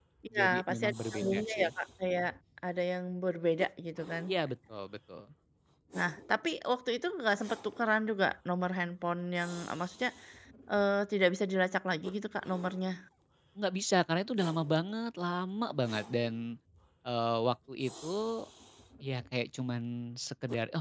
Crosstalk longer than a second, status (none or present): present